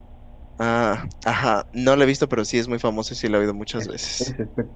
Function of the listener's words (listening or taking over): taking over